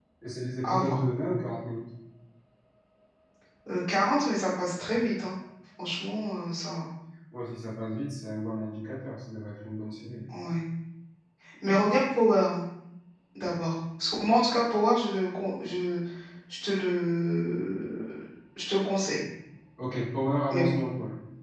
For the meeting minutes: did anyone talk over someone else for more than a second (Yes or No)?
No